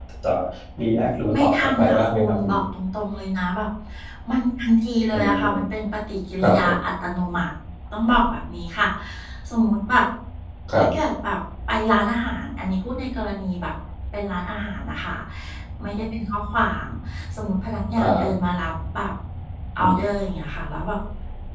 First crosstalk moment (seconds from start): 1.4 s

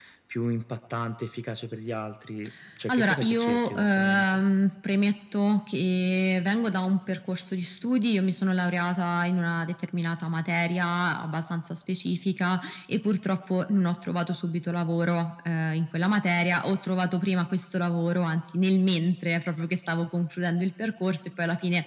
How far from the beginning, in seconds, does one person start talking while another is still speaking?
2.9 s

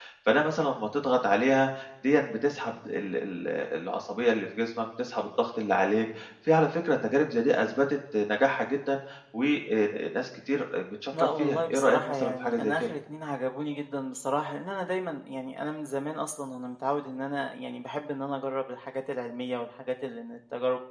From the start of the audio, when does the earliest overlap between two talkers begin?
11.1 s

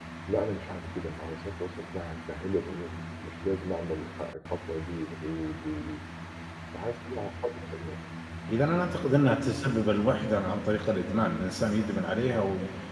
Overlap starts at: none

